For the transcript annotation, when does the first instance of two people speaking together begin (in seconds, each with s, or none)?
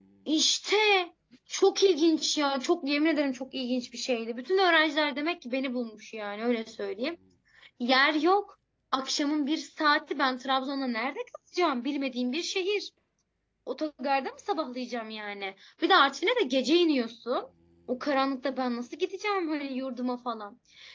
none